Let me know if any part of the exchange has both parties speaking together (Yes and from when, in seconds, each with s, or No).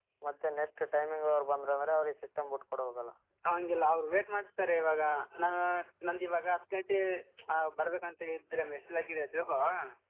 No